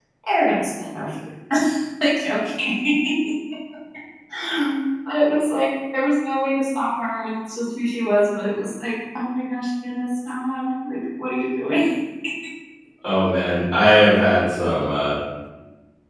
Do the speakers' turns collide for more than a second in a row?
No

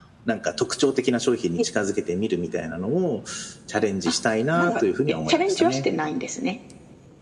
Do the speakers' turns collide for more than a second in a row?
Yes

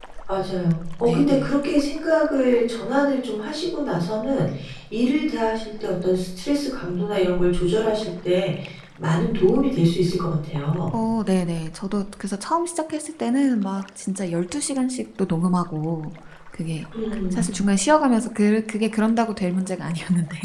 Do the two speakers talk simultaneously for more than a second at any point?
No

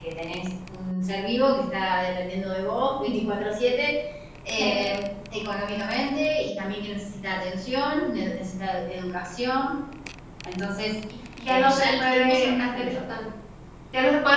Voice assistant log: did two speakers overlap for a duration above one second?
Yes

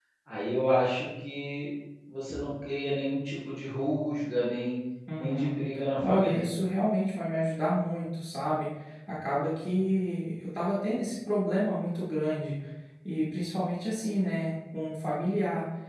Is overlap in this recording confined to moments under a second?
Yes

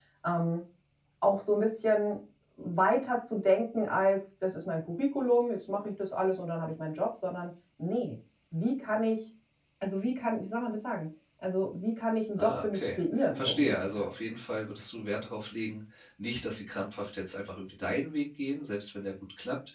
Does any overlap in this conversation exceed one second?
Yes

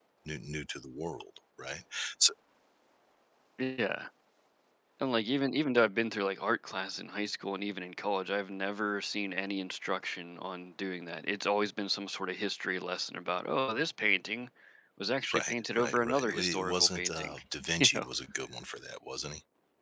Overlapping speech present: Yes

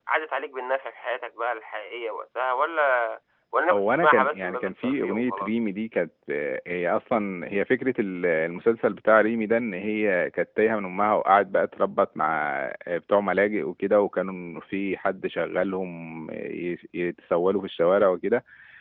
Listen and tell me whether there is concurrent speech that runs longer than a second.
Yes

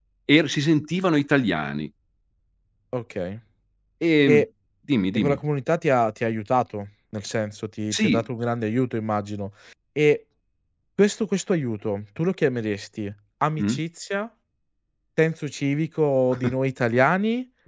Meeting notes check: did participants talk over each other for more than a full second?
No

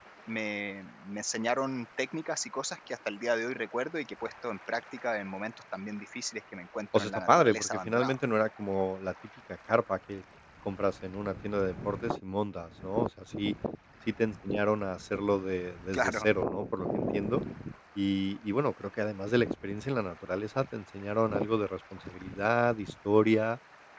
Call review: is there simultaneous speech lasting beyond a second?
Yes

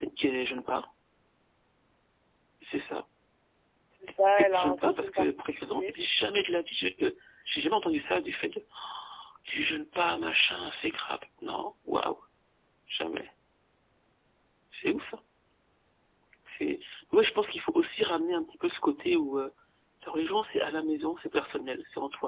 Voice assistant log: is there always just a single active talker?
No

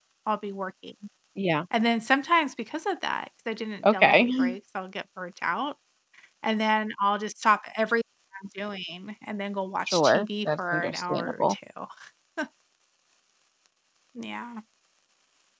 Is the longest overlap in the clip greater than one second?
Yes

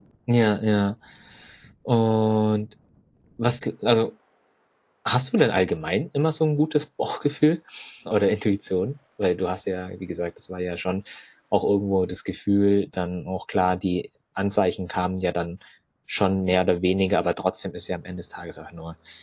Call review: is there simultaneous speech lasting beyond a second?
No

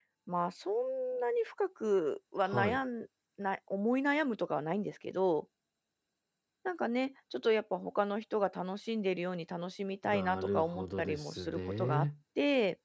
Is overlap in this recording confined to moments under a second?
No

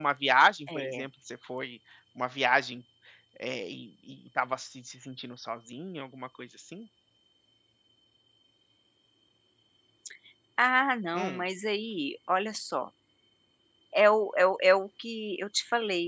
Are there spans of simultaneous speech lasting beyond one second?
No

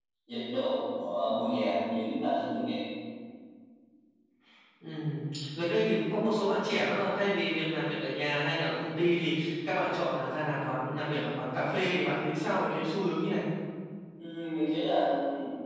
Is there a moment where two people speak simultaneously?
No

